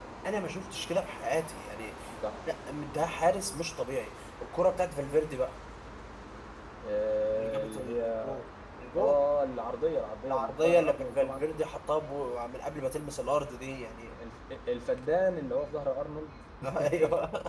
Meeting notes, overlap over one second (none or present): present